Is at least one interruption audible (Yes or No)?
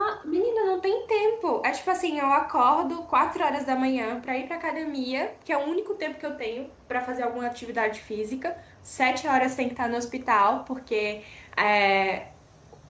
No